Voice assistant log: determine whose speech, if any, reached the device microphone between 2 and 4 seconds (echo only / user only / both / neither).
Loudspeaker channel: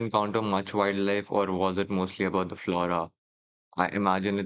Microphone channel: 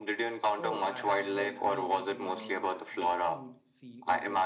both